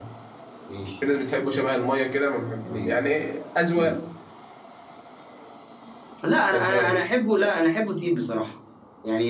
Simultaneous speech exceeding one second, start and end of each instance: none

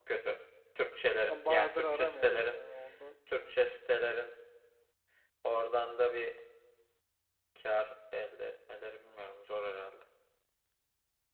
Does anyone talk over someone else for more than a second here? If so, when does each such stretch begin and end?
1.3-2.6

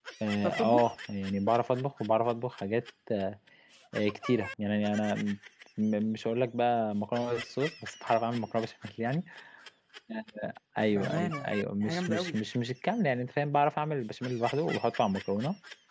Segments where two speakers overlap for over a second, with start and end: none

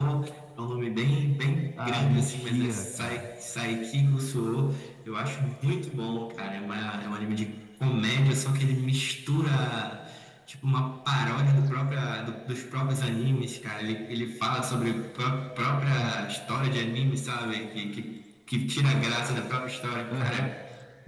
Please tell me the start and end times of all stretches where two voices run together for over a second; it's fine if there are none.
1.9-3.2

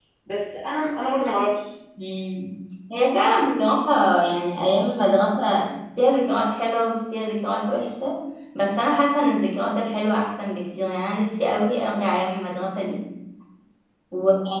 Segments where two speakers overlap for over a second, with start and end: none

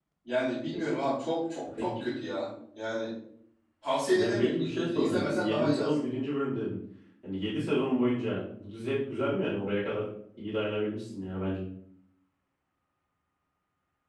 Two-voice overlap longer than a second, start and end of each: 4.1-5.9

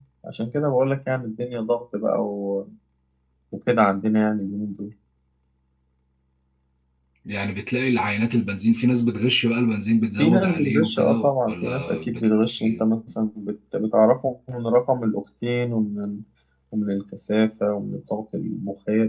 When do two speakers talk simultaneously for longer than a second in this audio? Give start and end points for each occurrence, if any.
10.2-12.9

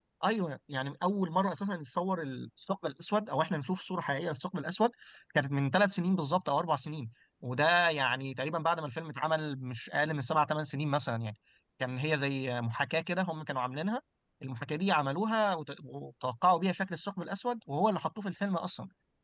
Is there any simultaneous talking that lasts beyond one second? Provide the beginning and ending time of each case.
none

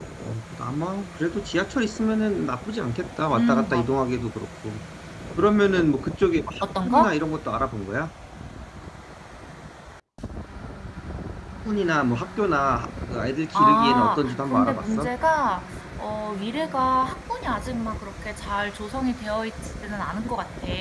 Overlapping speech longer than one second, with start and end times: 13.6-15.1

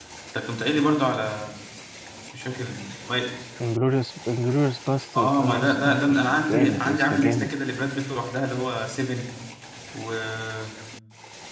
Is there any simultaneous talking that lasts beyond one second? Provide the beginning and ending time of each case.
5.1-7.6

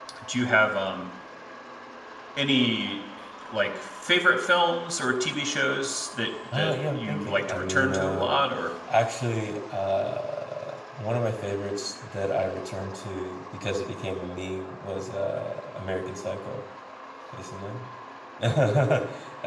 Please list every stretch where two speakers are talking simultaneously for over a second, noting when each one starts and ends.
6.6-8.4

